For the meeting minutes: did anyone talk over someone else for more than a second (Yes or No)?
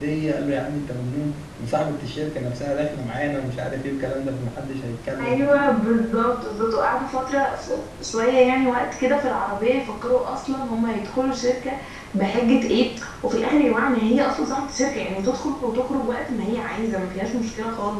No